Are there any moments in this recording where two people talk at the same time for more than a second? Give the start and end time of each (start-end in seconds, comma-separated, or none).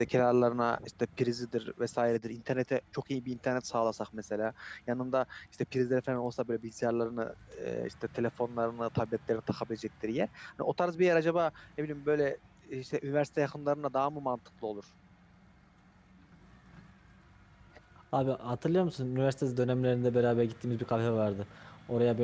none